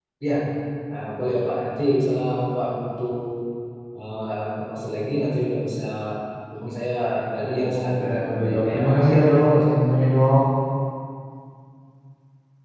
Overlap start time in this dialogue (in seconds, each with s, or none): 7.4 s